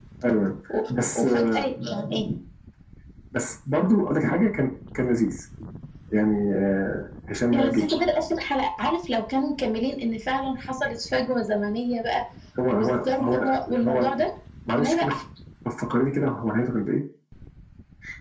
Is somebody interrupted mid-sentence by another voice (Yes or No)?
Yes